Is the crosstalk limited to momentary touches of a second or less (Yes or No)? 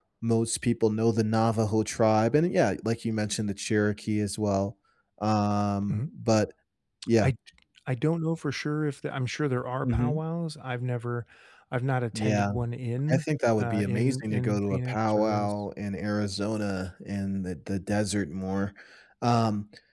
No